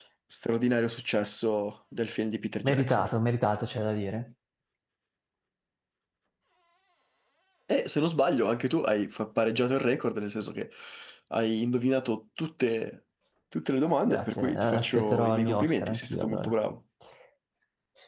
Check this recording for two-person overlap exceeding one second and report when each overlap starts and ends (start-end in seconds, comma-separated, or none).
13.8-16.5